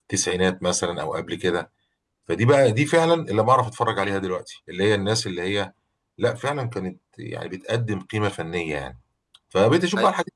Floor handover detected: No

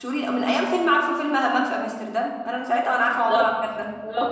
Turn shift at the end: Yes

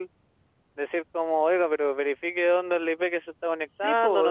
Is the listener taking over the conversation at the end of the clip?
Yes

